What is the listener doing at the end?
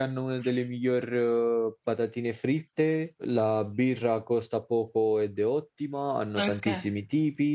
listening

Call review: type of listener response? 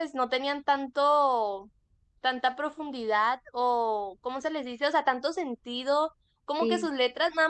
listening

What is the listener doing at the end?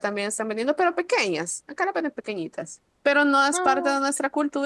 listening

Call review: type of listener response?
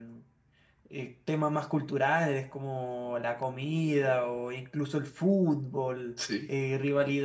listening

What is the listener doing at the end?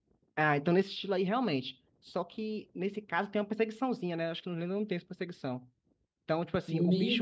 taking over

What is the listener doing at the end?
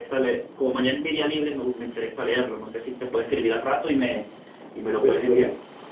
taking over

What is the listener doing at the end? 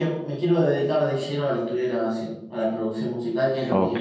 taking over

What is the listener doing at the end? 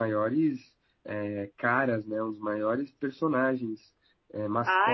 taking over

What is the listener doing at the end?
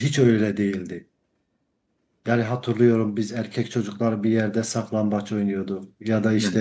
listening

